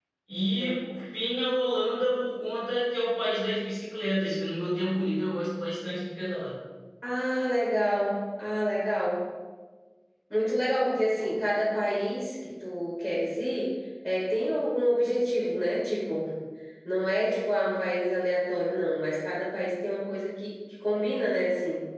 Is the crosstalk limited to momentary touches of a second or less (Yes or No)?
Yes